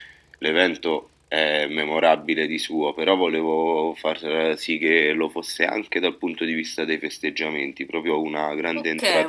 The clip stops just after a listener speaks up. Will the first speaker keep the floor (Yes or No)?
No